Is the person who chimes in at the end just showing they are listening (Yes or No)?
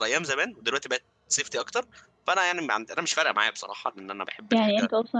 No